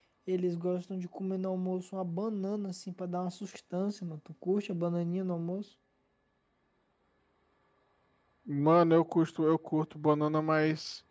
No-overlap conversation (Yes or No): Yes